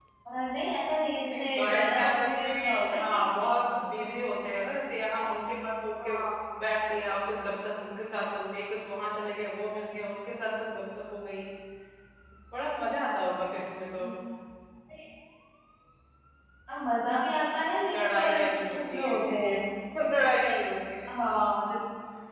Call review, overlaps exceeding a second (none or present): present